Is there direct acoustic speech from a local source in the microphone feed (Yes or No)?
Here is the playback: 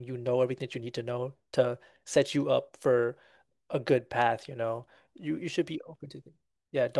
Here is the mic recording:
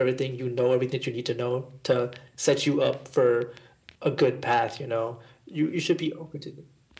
No